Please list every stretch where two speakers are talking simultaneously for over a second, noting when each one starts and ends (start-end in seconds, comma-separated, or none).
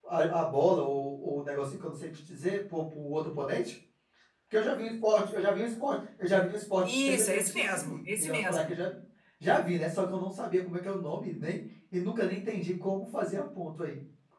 6.9-8.7